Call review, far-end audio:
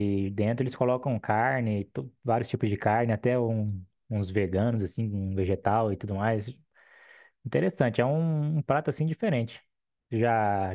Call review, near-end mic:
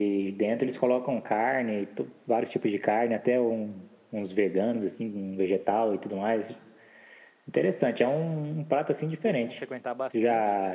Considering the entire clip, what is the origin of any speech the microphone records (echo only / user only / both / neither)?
both